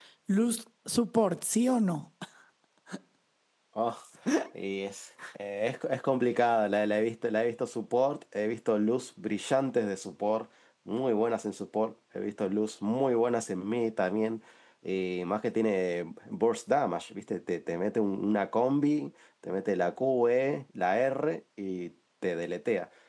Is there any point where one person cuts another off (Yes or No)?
No